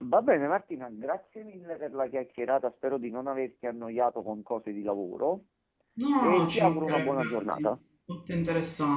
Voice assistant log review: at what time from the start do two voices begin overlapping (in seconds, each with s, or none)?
6.2 s